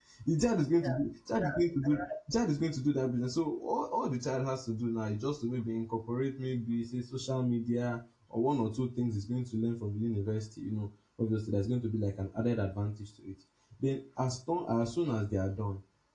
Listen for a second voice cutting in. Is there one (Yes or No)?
No